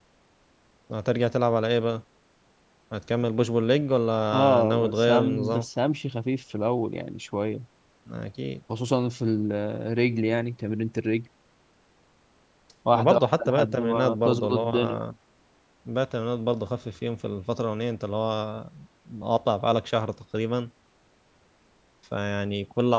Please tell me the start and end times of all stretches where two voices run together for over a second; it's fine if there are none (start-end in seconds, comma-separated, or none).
4.3-5.6, 12.9-14.7